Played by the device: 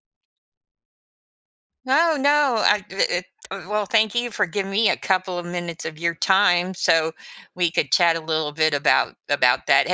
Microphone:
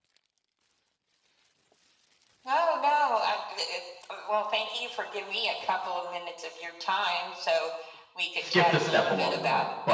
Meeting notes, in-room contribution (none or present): present